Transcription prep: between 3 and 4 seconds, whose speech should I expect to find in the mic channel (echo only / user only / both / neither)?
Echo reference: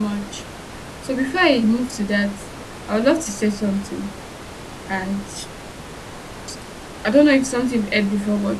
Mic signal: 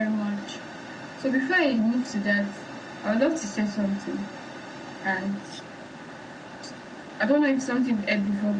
echo only